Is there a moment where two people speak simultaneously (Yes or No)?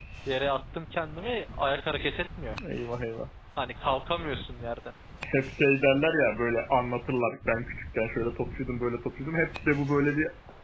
No